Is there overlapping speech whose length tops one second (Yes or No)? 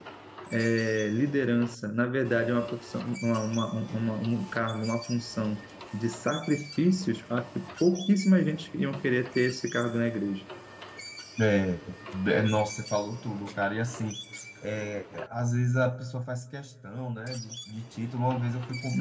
No